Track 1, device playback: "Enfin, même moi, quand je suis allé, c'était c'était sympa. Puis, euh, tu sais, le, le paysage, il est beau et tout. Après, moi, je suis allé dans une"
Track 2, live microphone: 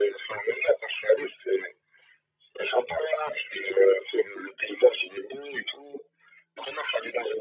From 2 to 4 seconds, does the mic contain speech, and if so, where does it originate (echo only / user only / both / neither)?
echo only